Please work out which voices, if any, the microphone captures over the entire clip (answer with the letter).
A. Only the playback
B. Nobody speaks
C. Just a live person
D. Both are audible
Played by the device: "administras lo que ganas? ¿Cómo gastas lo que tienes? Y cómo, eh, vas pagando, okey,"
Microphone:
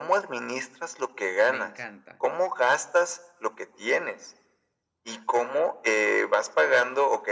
D